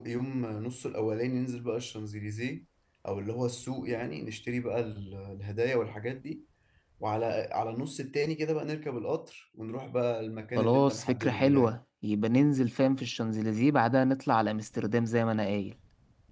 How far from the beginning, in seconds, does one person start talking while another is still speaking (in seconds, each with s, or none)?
10.6 s